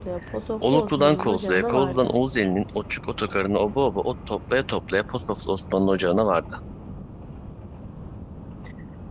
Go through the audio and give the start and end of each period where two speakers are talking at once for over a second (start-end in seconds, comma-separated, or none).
0.6-2.1